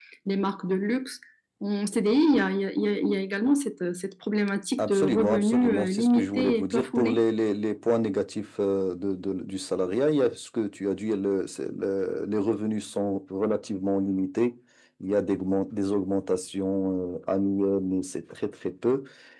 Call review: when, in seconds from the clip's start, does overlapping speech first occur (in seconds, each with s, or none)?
4.8 s